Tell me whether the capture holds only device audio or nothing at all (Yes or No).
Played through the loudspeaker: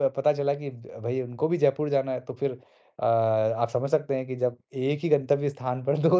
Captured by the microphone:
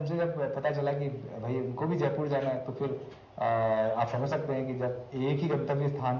Yes